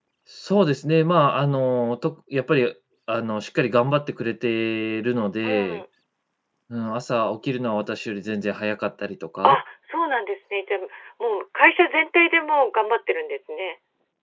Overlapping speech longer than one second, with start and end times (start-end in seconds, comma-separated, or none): none